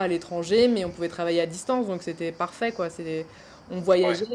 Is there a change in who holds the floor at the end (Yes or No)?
No